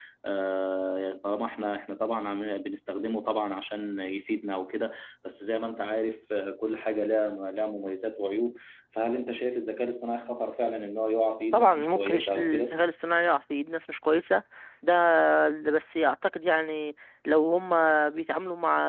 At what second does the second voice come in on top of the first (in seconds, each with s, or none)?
11.5 s